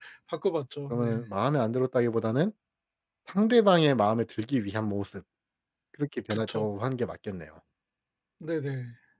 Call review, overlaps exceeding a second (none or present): none